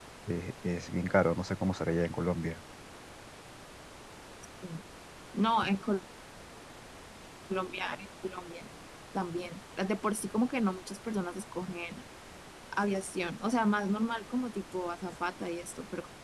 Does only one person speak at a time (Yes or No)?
Yes